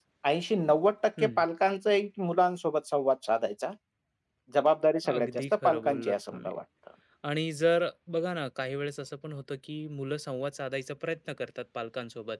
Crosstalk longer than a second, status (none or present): present